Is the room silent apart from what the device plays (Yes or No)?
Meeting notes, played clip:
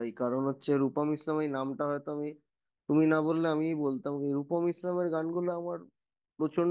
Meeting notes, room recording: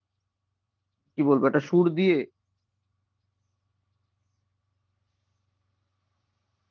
No